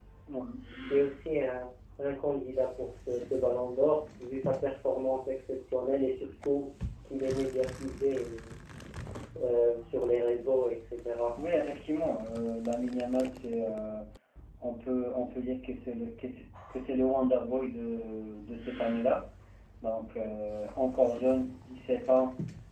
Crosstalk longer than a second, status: none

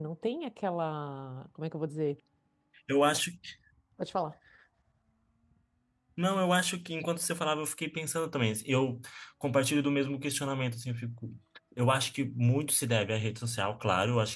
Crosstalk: none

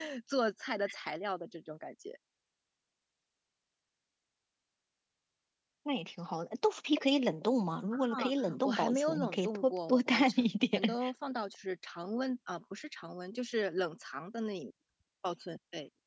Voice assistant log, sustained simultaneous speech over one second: present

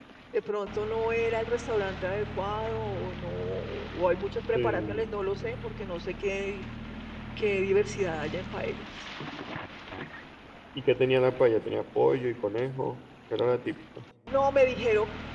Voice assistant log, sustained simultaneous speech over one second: none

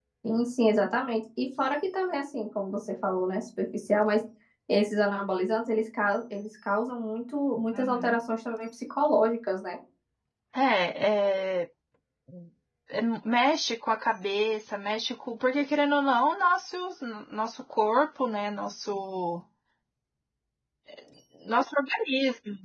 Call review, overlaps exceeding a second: none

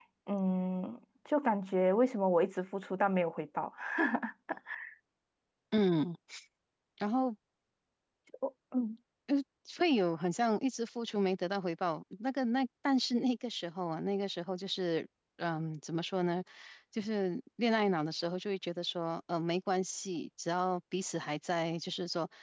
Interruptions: none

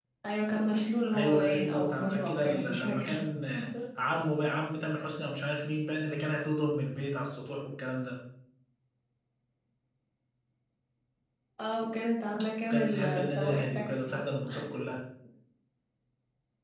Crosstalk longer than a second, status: present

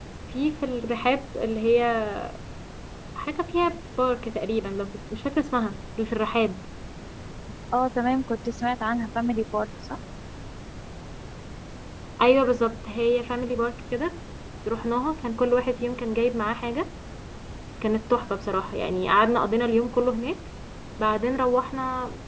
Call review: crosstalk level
none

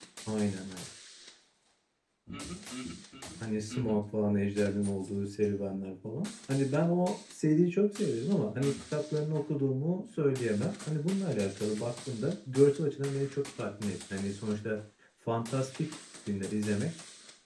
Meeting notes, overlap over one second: none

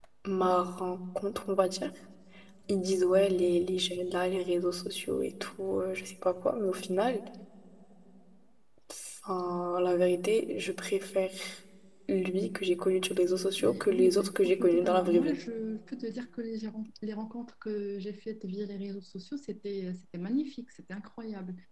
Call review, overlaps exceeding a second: present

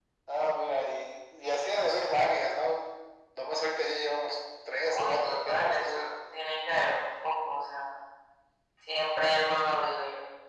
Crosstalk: present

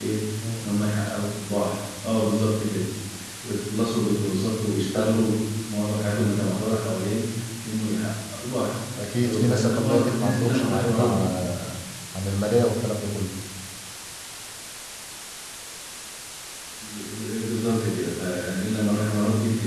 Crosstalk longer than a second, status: present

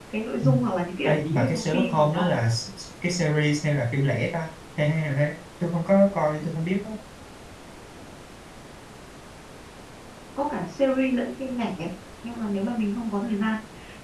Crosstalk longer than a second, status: present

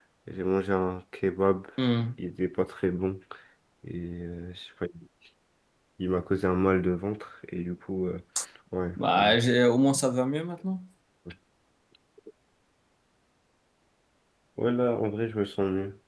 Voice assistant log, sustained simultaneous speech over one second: none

